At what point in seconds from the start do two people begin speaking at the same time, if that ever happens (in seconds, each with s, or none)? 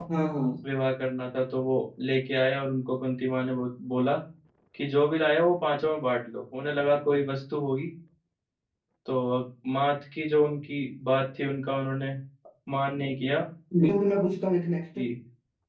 none